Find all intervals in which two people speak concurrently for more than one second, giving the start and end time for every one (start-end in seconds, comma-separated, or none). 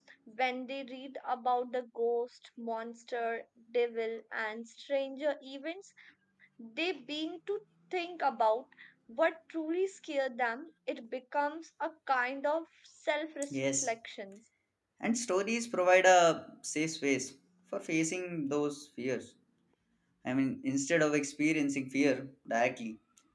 none